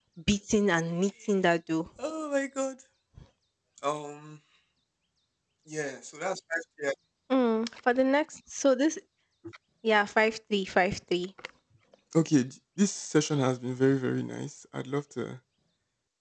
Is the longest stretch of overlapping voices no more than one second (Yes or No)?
Yes